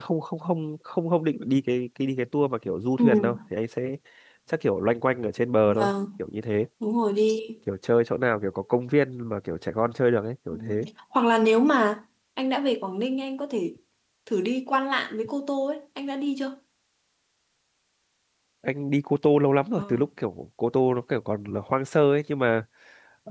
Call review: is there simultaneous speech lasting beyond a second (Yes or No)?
No